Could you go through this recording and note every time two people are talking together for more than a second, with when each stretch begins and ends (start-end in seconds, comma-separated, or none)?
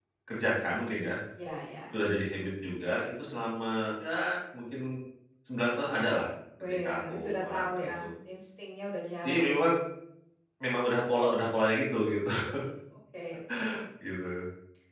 6.6-8.0